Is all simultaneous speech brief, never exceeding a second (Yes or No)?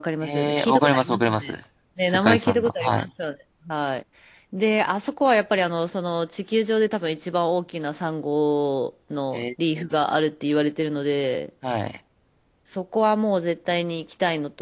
No